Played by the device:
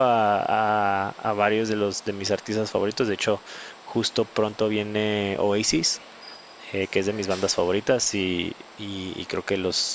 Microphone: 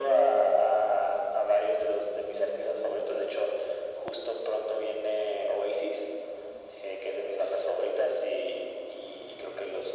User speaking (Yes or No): No